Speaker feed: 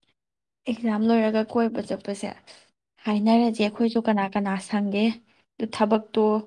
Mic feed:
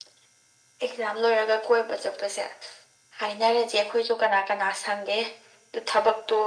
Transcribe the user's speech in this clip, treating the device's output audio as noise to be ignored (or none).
none